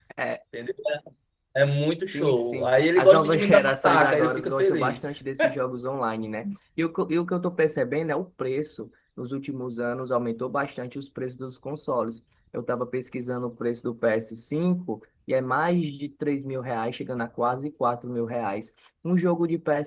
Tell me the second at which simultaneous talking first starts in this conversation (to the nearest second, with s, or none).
2 s